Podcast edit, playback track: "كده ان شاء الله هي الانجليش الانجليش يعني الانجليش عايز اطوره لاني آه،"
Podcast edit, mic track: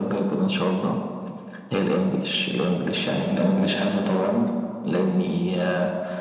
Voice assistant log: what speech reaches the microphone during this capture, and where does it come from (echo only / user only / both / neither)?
echo only